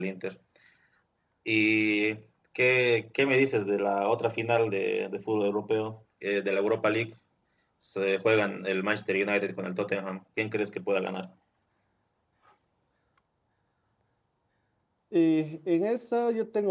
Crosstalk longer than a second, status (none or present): none